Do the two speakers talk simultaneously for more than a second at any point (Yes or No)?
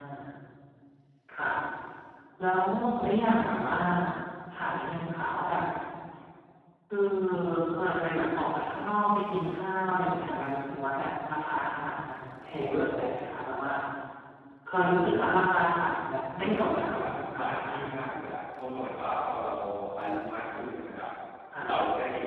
Yes